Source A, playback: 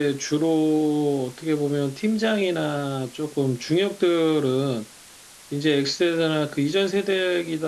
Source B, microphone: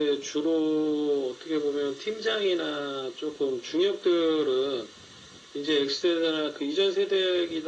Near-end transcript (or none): none